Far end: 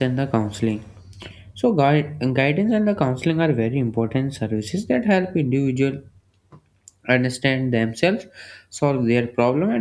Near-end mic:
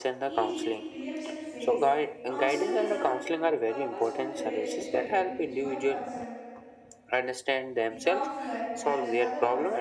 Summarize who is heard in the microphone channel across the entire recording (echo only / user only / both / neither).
both